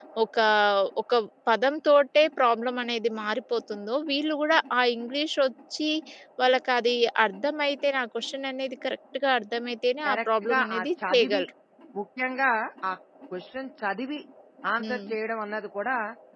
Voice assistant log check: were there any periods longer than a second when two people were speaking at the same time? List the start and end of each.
10.0-11.4

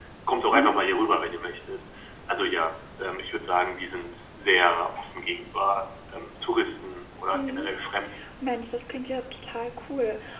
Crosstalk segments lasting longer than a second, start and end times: none

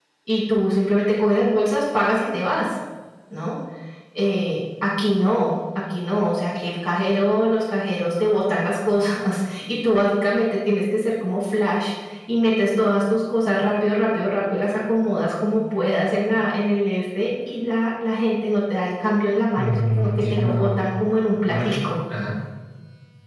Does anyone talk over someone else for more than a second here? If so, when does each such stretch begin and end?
19.6-20.8

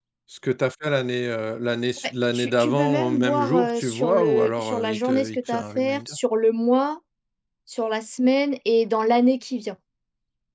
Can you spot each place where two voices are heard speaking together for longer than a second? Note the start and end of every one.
2.3-6.2

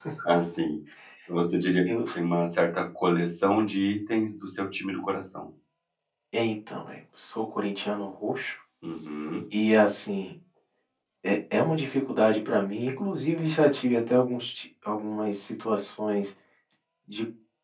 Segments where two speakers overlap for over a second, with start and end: none

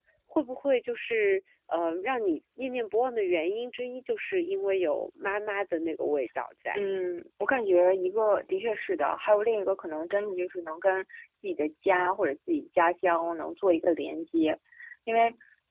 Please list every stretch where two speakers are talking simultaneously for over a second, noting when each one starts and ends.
none

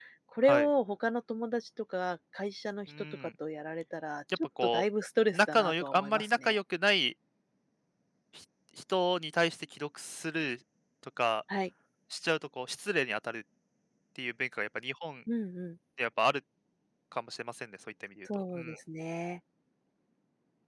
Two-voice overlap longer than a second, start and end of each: 5.3-6.6

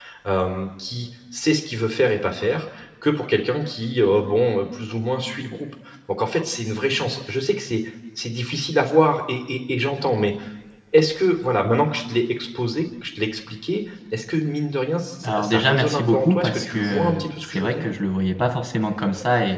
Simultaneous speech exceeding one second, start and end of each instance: 15.2-17.9

